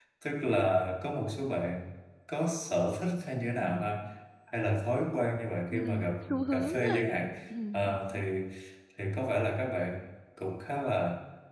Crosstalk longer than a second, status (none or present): present